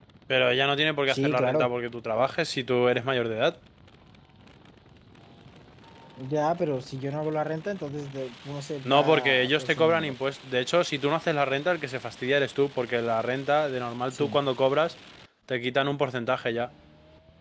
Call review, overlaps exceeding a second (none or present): present